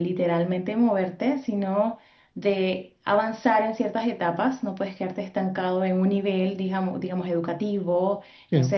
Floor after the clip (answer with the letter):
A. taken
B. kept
B